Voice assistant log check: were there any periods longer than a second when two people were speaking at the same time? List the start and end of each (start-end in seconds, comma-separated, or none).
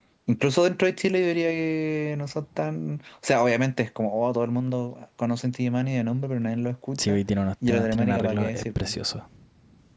7.7-8.9